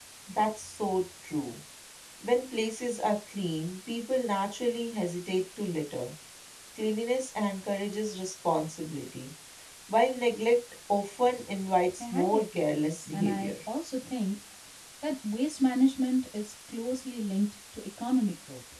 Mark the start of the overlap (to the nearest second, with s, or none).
12 s